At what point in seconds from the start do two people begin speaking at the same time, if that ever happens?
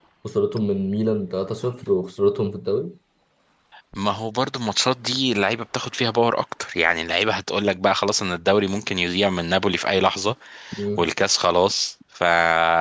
none

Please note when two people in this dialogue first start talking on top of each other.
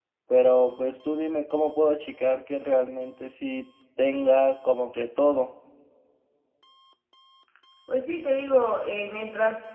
none

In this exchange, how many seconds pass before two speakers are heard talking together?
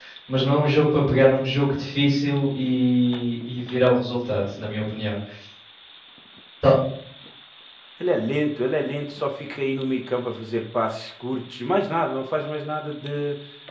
none

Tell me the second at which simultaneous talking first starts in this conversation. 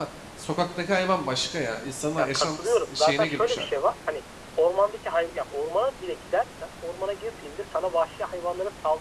2 s

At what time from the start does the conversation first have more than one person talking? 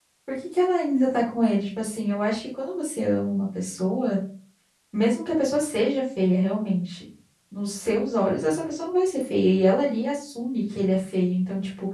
none

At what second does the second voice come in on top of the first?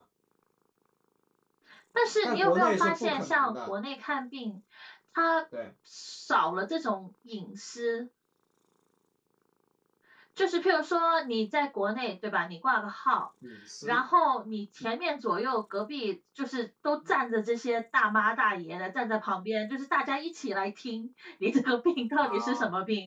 2 s

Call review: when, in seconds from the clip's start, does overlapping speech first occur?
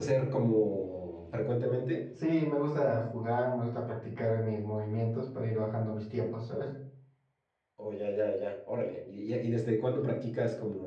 none

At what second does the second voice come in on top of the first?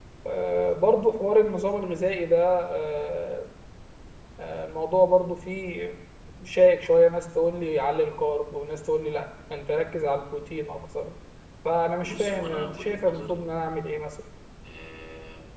12 s

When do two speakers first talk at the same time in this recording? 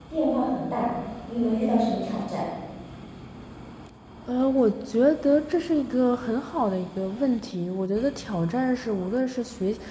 none

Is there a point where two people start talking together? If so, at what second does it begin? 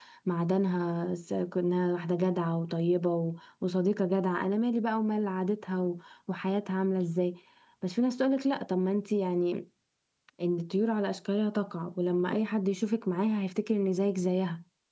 none

